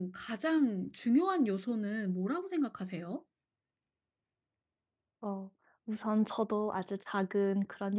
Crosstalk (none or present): none